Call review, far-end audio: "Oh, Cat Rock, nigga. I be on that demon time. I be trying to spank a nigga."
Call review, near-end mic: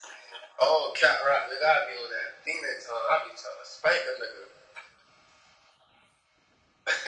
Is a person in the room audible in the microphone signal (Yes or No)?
No